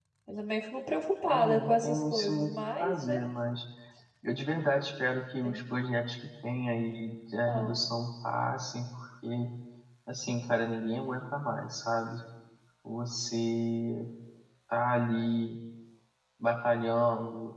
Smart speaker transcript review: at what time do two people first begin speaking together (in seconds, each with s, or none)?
1.3 s